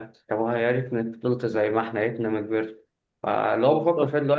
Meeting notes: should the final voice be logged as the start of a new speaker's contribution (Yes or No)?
No